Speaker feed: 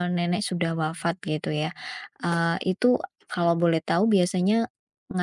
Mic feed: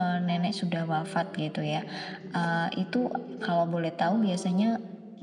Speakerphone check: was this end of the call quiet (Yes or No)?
No